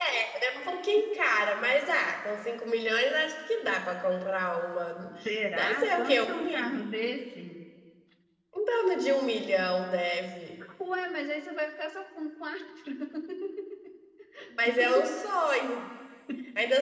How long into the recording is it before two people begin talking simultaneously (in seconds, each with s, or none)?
5.5 s